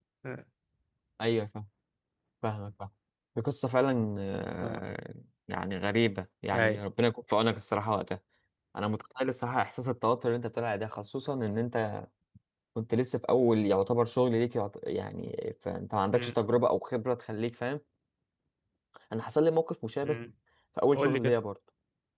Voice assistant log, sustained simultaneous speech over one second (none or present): none